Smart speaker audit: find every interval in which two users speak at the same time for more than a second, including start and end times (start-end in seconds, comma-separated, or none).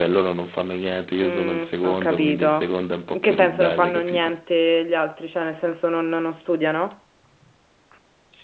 1.2-2.7, 3.1-4.3